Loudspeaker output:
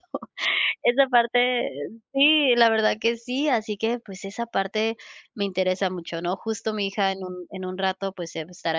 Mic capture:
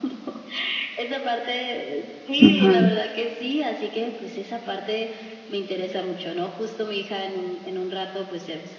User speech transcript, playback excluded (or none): Ujú.